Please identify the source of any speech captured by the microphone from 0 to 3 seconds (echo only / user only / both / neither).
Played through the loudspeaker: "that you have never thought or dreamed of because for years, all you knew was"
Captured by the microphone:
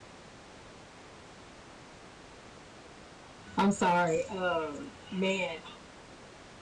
neither